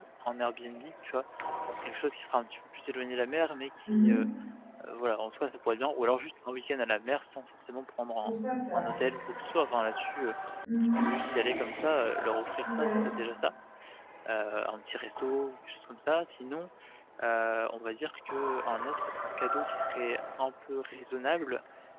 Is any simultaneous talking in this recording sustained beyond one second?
No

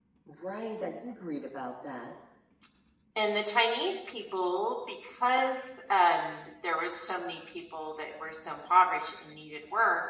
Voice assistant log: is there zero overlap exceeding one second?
Yes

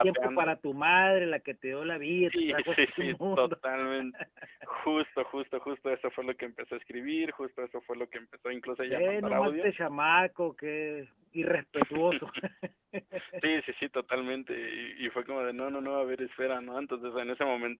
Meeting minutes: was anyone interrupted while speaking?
Yes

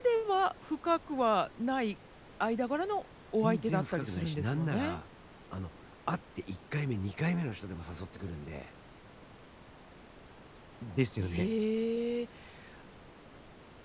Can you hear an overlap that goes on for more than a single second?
Yes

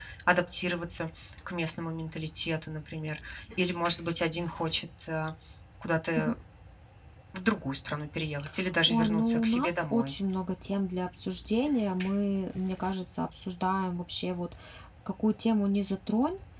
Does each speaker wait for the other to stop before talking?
No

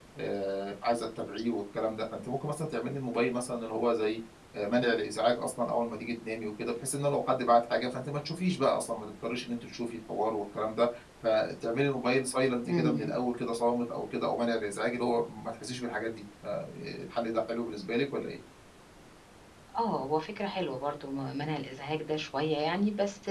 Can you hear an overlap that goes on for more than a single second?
No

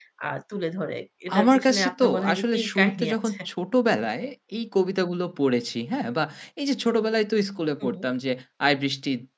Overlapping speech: Yes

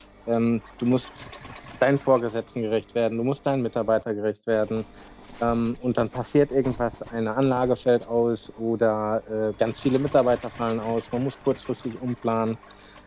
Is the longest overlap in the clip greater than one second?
No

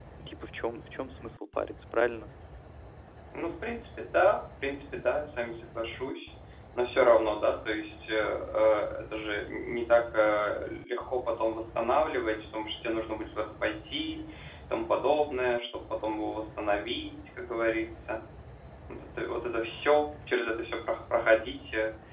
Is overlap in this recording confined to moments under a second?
Yes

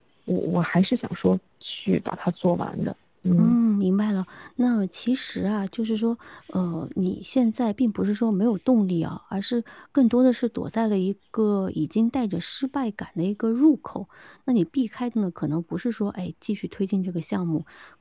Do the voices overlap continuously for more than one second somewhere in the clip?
No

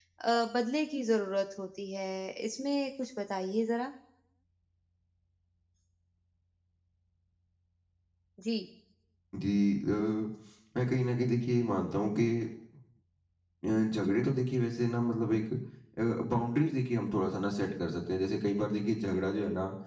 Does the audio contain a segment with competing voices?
No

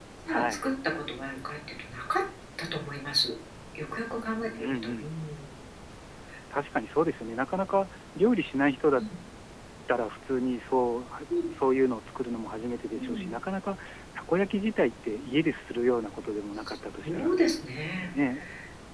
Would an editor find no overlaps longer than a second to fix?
Yes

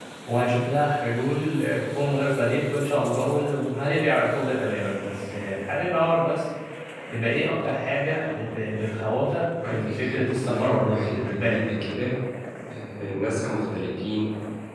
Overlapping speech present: Yes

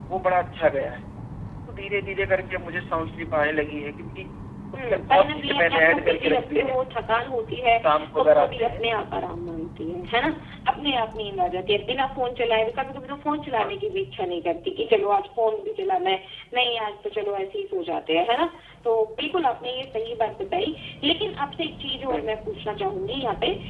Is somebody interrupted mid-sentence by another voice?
Yes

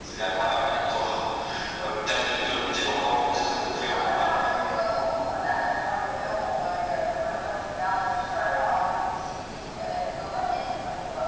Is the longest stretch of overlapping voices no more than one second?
No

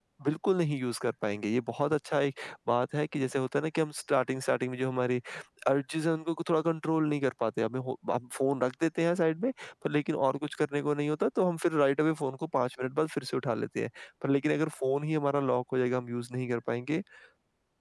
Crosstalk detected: No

